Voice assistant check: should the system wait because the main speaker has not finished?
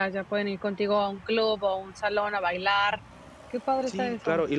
No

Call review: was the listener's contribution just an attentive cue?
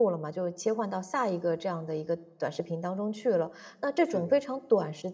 Yes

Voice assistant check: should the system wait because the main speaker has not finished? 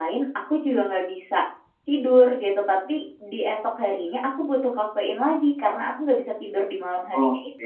No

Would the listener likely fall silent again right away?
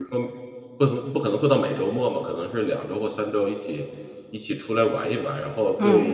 Yes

